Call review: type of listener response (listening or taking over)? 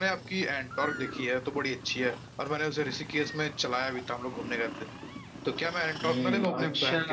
taking over